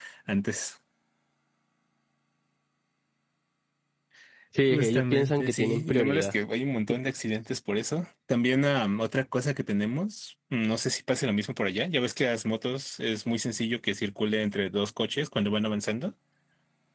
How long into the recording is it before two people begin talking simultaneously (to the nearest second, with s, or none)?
5 s